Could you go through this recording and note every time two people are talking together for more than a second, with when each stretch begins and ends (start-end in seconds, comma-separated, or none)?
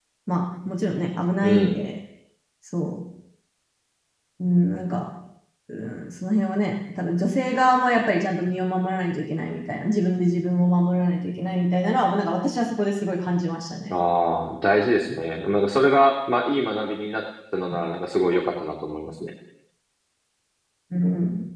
none